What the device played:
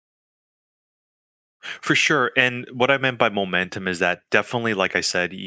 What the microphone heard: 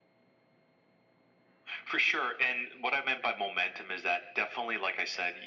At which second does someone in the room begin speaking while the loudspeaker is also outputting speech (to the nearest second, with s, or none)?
none